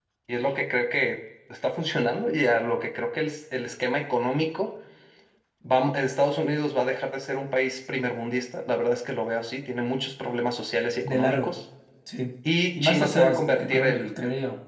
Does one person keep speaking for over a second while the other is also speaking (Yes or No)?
Yes